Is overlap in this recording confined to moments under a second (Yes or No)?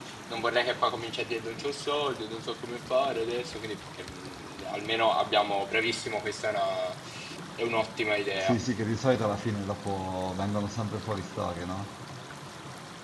Yes